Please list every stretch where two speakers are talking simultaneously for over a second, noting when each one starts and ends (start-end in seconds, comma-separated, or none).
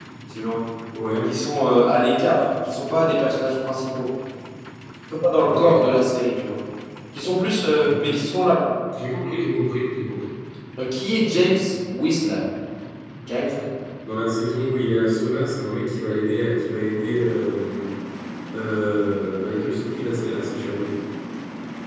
none